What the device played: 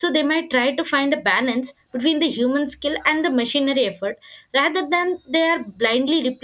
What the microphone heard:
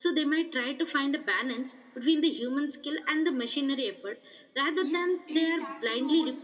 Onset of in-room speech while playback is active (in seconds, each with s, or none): 4.8 s